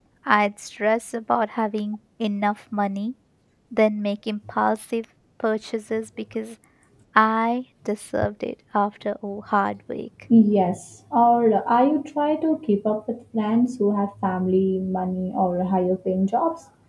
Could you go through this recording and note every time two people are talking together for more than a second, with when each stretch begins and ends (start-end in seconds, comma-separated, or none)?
none